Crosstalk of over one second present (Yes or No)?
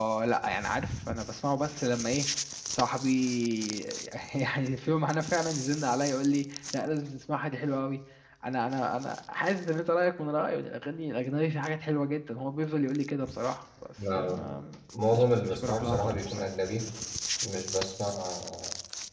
Yes